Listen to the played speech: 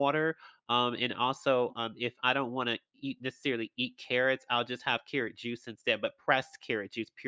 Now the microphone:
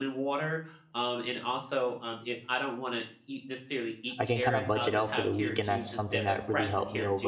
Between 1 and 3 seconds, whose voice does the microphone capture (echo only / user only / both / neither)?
echo only